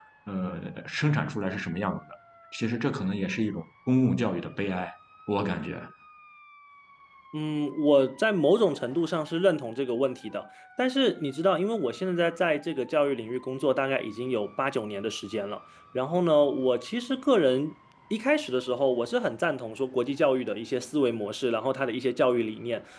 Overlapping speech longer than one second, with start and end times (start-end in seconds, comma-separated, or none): none